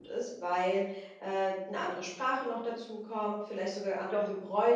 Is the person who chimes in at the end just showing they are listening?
Yes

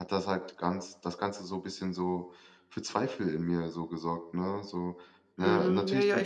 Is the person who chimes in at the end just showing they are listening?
No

